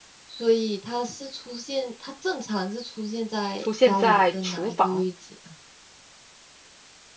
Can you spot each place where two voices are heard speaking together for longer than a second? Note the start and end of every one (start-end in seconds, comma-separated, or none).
3.8-5.0